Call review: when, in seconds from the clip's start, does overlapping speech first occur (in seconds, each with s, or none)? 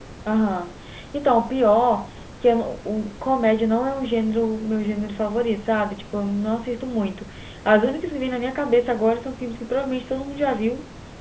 none